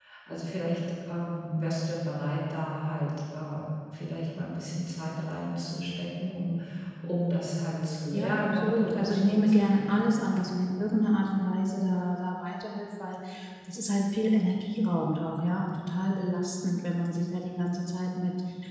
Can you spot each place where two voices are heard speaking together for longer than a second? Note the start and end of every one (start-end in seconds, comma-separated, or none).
8.1-10.1